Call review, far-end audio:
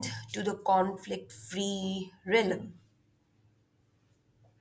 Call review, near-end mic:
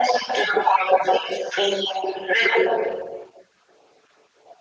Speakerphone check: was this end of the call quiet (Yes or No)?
Yes